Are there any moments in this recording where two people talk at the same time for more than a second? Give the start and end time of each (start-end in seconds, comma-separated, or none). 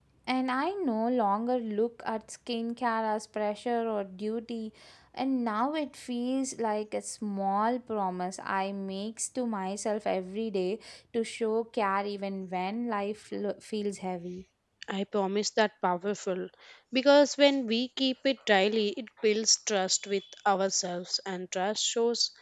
none